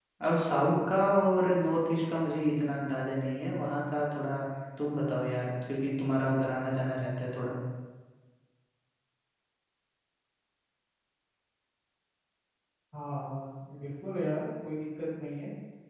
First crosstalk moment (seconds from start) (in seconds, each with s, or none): none